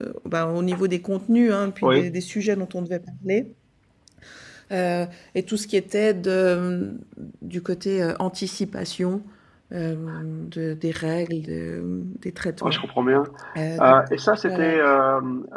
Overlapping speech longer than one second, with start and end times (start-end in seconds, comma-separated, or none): none